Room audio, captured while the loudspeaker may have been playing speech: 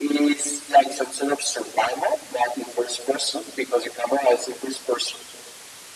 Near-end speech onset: none

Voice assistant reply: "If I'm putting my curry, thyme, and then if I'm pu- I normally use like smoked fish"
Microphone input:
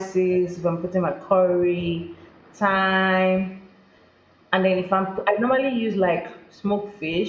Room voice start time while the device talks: none

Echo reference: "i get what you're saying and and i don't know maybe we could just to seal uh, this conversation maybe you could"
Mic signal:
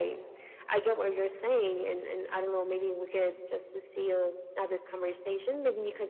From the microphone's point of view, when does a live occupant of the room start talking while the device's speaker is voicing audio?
none

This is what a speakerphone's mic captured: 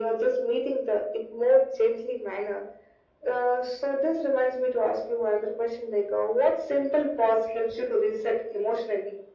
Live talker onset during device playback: none

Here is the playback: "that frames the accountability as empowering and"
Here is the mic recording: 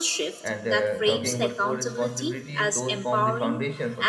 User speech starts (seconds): 0 s

